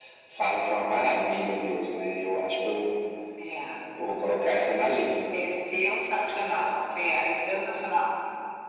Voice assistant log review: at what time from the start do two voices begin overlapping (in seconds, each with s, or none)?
none